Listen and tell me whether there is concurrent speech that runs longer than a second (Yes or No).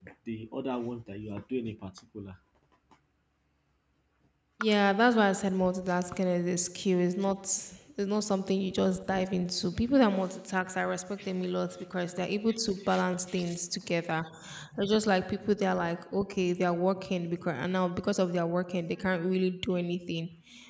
No